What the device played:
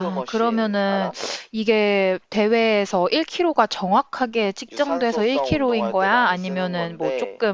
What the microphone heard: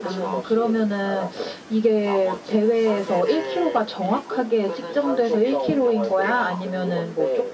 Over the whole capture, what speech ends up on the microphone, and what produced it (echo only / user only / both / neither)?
both